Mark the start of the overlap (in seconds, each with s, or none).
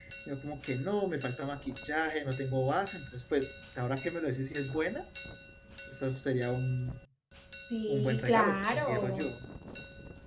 7.9 s